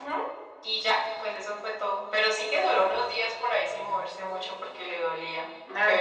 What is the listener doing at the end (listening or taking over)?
taking over